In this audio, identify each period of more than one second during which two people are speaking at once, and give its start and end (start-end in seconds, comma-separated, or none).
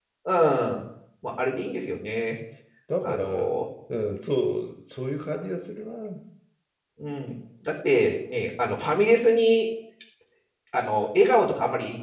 none